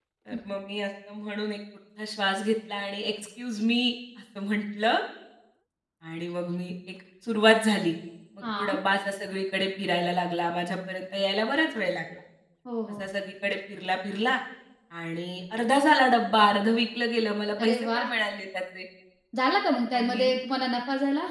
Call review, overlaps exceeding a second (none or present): none